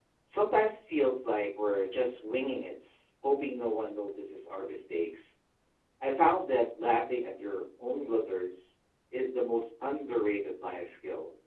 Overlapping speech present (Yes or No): No